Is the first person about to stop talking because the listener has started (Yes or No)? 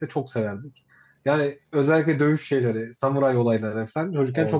No